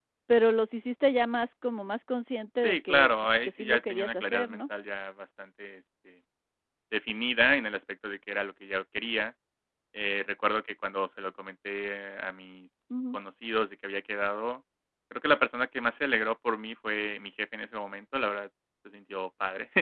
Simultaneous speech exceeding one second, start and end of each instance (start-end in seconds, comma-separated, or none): 2.6-4.6